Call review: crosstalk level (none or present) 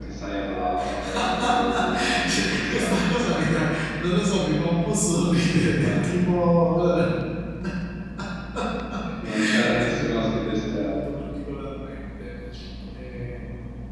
present